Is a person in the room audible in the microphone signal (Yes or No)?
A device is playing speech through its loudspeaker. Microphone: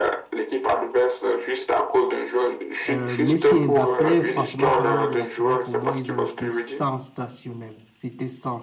Yes